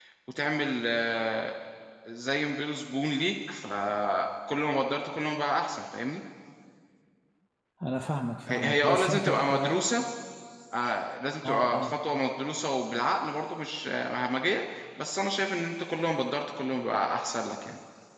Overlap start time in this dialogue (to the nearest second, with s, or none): 8 s